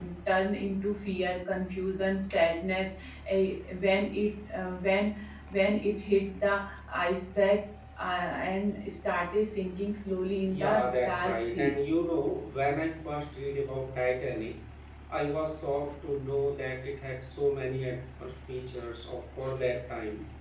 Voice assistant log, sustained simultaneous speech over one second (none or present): present